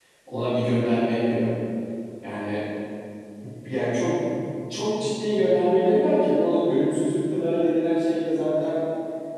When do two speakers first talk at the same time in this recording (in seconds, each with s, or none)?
none